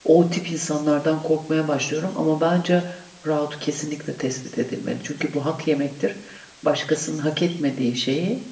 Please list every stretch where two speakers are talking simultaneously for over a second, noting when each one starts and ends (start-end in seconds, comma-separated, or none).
none